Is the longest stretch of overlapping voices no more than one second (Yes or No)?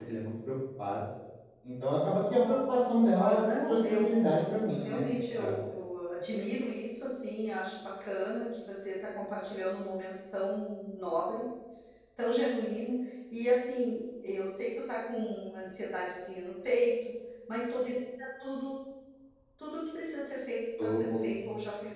No